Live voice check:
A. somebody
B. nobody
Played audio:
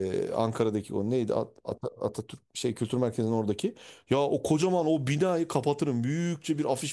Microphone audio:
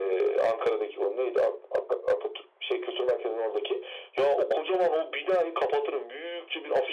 B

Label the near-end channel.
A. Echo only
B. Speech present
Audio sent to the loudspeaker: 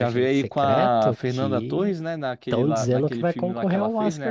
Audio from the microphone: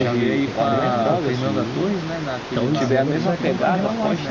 B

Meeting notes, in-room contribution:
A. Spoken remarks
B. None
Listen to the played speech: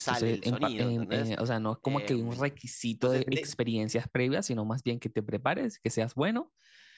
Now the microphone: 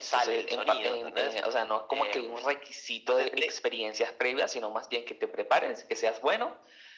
B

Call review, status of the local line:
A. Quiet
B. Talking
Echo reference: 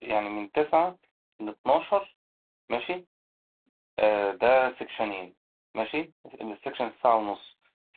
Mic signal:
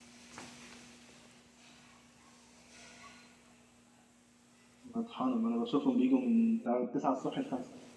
B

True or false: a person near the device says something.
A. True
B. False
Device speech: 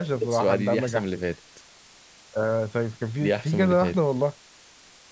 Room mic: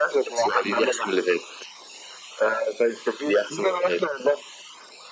B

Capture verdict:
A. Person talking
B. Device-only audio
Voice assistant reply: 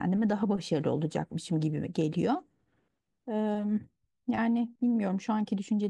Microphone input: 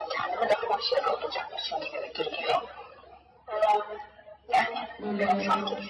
A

